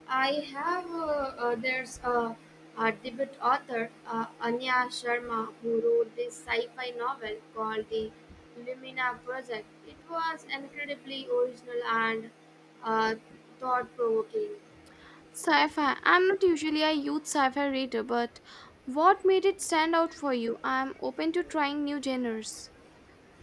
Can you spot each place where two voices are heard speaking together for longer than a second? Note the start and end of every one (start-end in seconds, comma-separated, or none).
none